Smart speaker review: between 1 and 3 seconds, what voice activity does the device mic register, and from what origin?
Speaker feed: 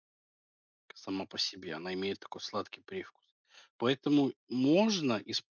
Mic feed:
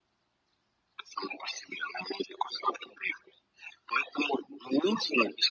echo only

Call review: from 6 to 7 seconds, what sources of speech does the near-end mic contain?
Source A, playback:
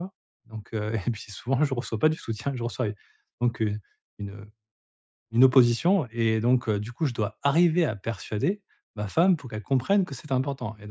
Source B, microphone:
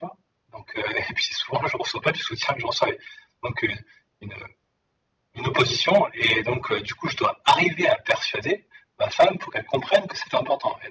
echo only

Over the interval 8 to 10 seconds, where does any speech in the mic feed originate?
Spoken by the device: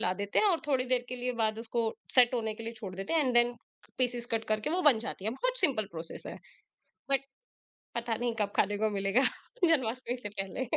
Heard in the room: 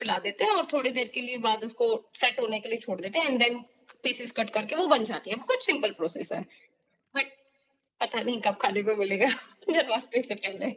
echo only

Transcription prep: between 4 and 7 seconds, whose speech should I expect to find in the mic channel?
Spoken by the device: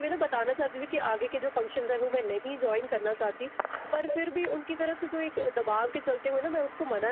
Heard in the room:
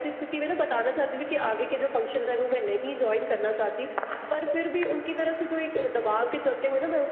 echo only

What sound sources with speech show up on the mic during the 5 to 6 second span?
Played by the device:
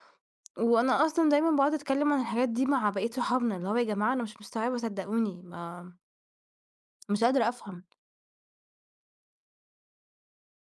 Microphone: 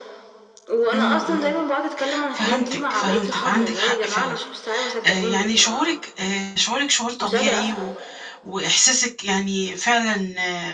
both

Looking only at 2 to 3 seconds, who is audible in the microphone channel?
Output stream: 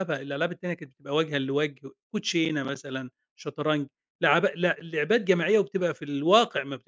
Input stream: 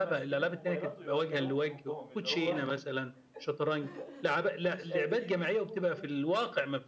both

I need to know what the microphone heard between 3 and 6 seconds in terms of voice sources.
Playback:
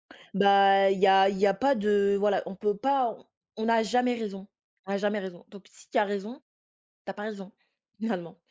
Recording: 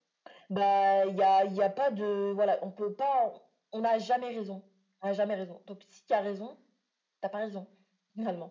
echo only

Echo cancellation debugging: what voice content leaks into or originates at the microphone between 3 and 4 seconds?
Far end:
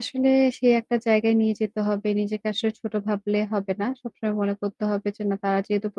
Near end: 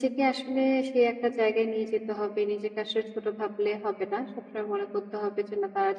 echo only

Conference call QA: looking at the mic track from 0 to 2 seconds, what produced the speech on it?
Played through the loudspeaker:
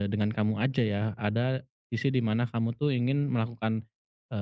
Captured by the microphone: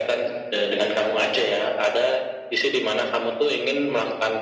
echo only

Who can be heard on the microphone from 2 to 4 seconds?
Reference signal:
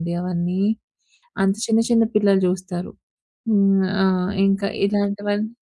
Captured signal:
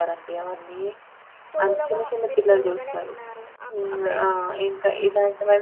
both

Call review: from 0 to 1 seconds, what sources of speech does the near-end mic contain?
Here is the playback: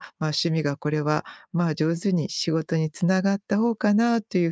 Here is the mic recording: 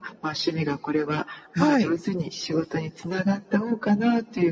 echo only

